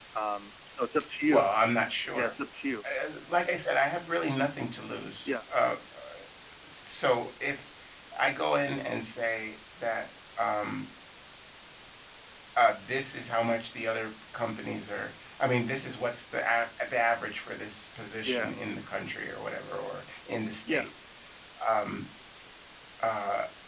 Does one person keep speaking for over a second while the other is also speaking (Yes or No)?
No